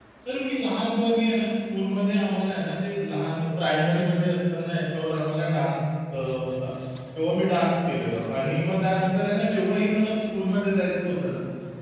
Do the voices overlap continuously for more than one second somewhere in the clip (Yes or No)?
No